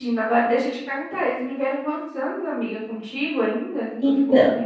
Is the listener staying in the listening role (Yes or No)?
No